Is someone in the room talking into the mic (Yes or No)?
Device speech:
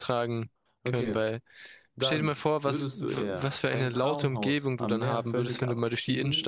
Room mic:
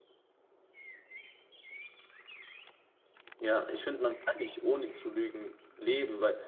Yes